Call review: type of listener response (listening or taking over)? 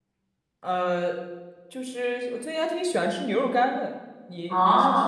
taking over